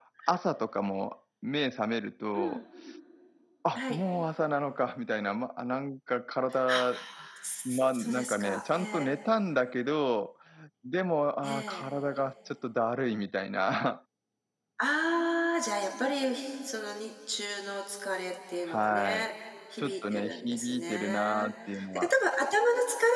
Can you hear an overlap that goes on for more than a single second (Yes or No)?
Yes